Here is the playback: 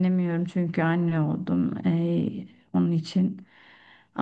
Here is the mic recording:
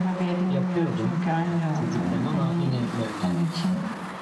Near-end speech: present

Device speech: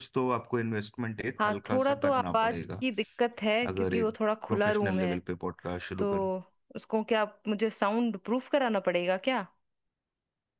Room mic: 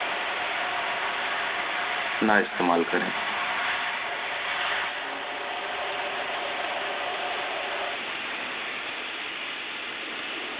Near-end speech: present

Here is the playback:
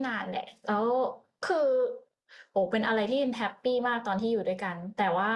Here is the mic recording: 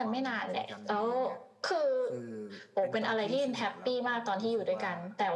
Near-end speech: present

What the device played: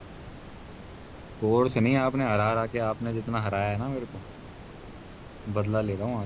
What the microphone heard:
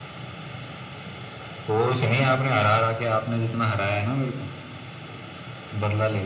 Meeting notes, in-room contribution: none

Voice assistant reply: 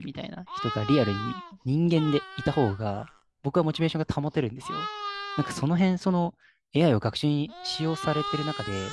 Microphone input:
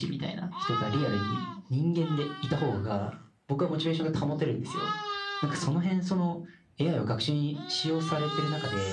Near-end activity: none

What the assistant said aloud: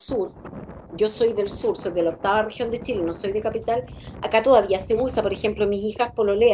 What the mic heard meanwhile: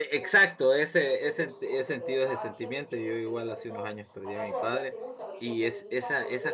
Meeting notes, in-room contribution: present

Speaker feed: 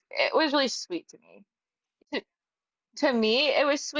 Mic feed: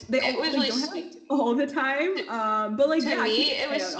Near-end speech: present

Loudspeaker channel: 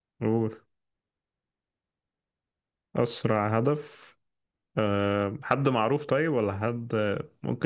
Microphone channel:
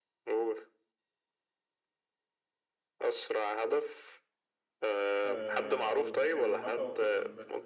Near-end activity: present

